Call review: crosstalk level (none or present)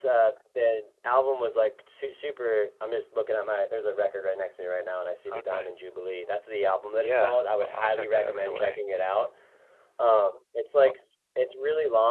present